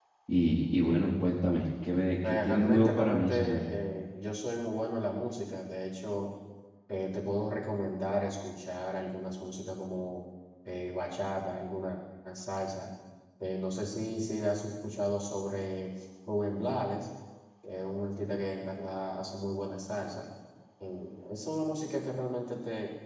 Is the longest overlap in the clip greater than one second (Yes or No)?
Yes